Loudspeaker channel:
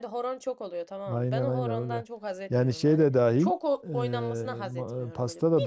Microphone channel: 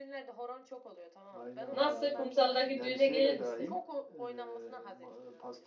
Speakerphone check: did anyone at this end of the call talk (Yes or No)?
Yes